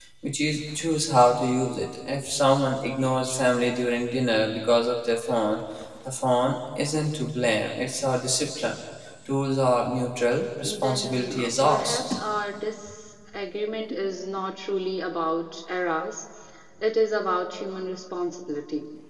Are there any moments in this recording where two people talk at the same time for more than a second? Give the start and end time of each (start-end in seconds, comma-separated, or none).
10.8-12.0